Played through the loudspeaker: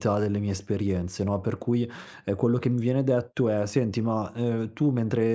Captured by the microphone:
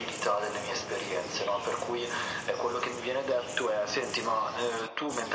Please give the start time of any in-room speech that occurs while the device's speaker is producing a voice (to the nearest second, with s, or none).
none